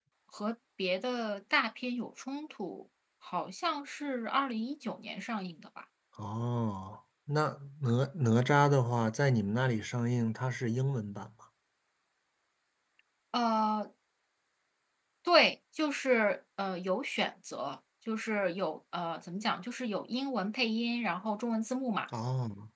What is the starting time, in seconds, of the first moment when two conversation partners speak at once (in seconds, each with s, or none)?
none